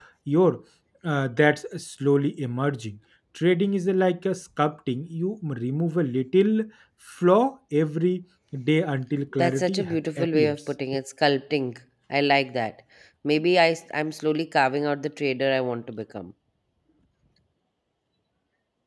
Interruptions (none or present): present